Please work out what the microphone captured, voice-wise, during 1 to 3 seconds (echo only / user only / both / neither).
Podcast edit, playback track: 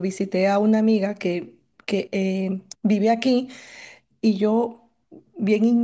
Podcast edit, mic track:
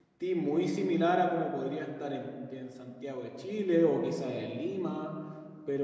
user only